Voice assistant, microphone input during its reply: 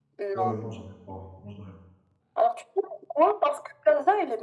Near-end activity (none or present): present